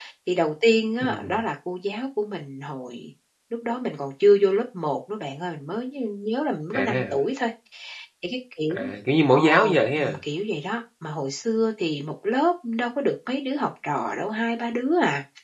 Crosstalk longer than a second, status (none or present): none